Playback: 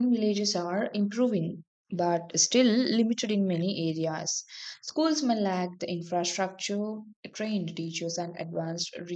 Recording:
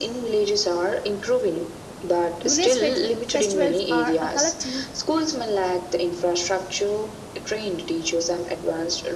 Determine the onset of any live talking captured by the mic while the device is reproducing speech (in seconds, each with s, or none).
2.4 s